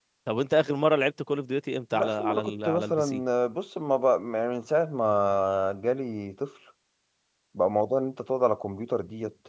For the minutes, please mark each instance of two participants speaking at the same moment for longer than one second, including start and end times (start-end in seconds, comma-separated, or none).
1.9-3.2